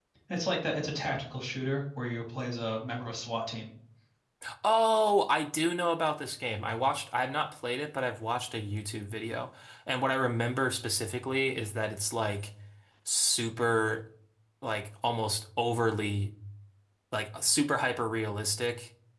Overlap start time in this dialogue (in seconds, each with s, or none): none